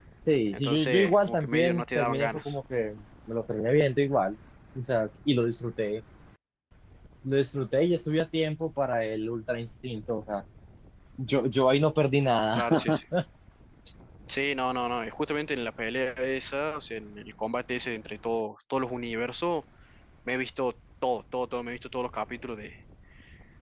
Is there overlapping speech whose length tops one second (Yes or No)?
Yes